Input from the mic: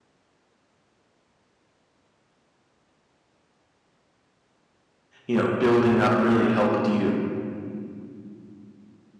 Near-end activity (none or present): present